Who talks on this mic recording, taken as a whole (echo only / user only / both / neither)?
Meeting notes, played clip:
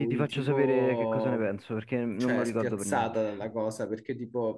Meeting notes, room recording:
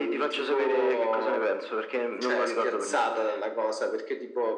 echo only